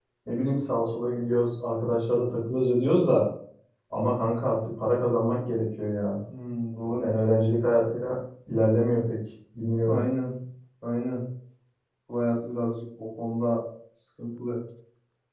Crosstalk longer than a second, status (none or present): none